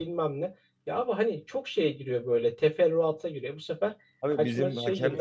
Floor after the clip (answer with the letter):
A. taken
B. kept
A